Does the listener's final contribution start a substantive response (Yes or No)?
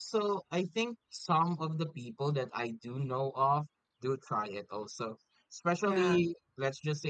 No